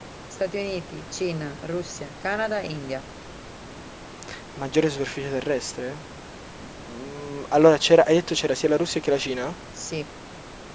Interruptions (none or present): none